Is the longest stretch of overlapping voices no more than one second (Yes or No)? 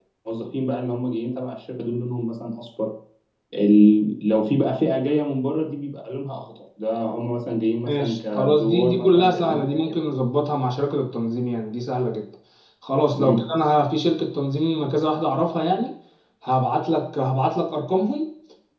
No